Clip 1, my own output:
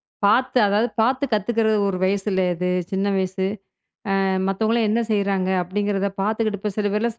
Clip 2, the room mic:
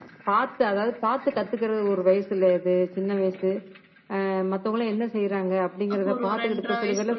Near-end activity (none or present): present